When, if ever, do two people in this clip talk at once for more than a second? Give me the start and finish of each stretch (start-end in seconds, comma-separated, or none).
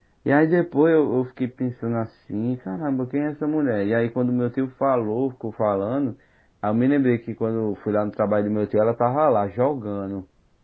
none